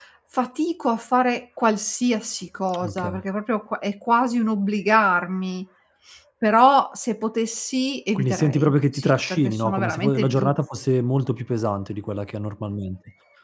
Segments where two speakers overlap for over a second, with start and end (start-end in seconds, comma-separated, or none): 8.2-10.6